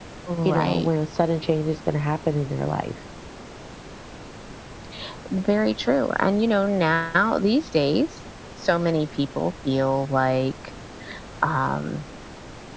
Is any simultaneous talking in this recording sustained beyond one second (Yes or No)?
No